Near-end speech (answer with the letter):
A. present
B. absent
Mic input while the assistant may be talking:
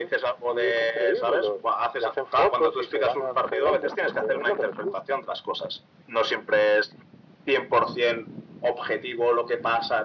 B